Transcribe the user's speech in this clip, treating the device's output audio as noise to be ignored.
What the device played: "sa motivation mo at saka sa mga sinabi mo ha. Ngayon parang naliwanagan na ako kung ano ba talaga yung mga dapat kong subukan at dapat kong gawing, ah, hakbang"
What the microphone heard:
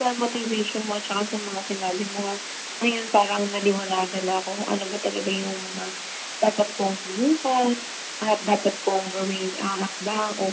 none

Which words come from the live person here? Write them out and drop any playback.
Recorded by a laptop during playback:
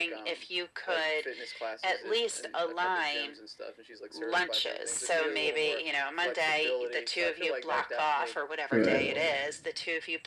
Right.

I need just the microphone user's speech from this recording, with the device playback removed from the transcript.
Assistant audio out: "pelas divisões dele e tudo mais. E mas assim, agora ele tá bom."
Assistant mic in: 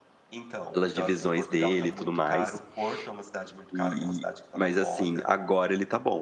Então então, assim, Portugal tá muito caro, Porto é uma cidade muito cara, que é uma cidade que tá na moda.

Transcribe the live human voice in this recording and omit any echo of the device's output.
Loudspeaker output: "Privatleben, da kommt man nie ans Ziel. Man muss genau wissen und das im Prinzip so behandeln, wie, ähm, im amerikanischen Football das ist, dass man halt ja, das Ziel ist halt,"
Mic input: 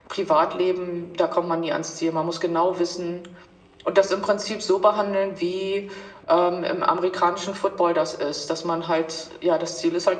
none

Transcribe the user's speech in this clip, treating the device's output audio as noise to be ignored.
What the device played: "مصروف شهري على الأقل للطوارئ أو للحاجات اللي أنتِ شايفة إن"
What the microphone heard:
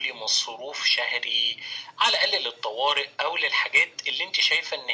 none

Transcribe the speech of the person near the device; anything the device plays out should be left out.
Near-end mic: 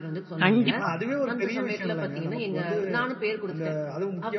கண்டிப்பா.

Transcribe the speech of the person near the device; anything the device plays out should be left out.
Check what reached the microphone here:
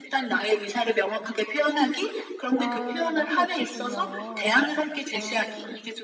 아 맛이 없었군요. 아.

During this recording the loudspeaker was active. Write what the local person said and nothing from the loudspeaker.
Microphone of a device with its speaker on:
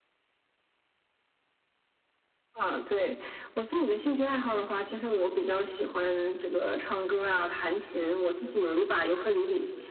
none

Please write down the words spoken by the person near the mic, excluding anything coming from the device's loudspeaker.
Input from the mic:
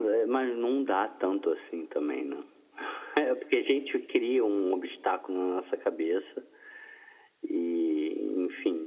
none

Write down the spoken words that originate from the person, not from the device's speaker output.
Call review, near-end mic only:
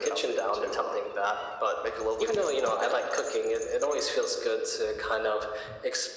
none

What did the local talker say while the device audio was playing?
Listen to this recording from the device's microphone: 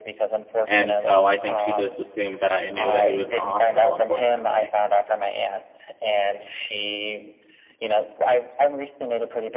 and so I think she just assumed that I knew that he was in the hospital, unfortunately.

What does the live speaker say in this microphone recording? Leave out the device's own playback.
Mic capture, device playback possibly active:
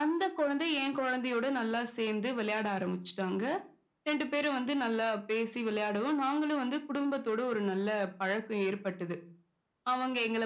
none

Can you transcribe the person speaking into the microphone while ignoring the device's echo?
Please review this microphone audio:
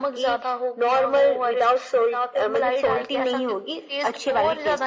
none

